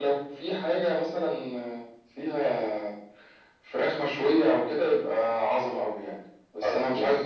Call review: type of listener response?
listening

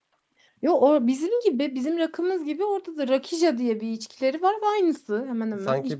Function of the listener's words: taking over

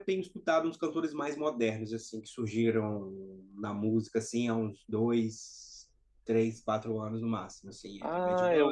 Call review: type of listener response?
taking over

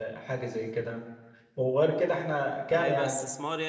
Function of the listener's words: taking over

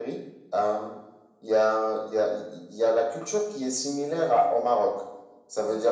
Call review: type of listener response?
listening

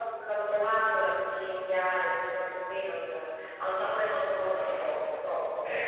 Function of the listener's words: taking over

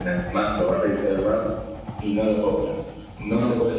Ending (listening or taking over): listening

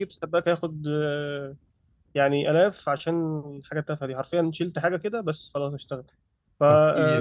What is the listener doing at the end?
taking over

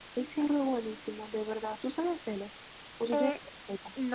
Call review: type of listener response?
taking over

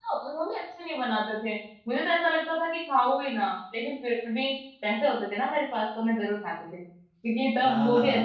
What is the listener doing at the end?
taking over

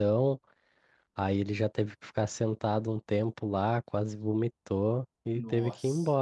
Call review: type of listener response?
listening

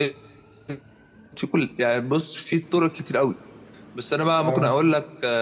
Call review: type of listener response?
listening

